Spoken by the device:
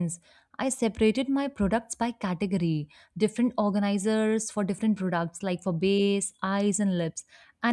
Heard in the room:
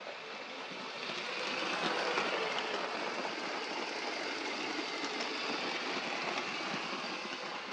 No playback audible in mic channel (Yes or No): Yes